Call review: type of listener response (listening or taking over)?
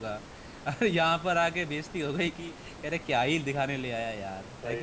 taking over